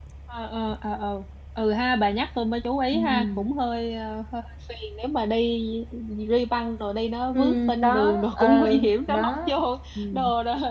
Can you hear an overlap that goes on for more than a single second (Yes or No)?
Yes